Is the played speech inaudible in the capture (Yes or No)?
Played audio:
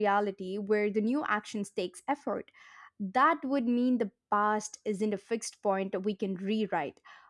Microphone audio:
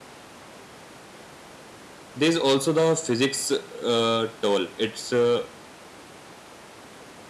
Yes